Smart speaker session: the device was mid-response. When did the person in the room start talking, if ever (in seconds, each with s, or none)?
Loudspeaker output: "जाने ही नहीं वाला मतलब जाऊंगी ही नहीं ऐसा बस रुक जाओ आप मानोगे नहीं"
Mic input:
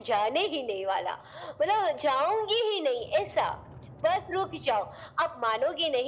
none